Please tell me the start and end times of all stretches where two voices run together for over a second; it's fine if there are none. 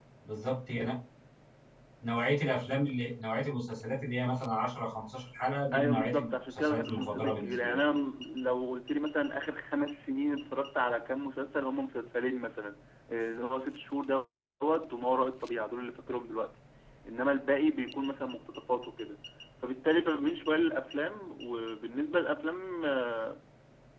5.7-7.8

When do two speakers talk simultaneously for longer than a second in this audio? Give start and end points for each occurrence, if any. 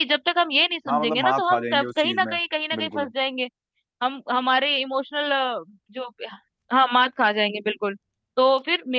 0.9-2.4

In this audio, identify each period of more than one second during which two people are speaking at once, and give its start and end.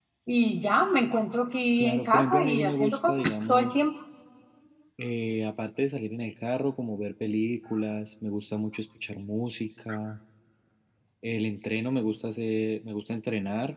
1.8-3.7

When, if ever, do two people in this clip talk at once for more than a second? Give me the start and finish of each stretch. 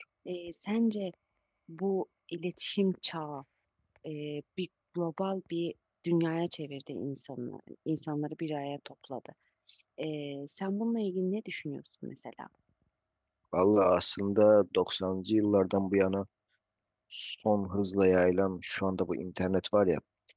none

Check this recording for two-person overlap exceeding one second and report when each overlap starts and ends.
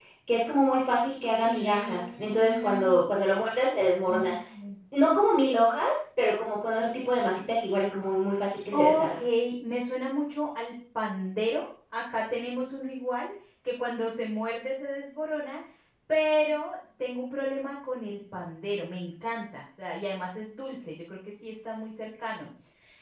1.5-2.9

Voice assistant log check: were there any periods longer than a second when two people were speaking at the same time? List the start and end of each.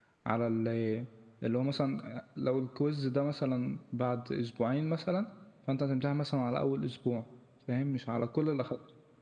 none

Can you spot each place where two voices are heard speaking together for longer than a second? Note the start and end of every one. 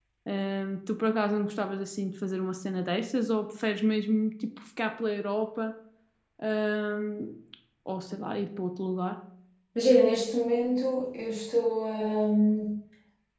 none

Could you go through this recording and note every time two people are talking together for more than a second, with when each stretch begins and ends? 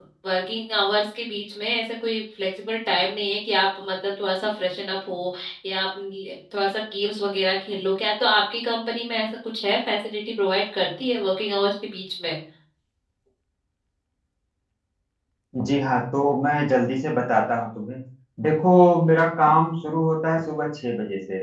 none

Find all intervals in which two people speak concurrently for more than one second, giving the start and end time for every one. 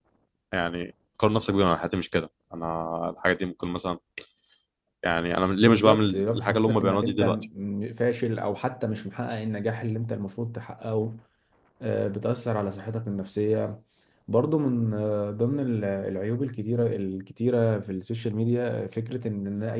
5.6-7.4

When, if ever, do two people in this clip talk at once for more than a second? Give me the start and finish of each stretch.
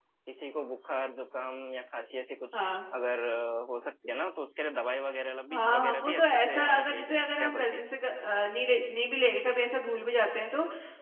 5.5-7.8

